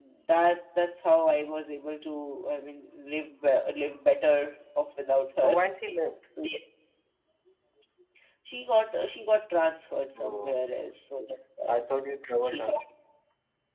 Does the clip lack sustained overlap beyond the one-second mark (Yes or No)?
Yes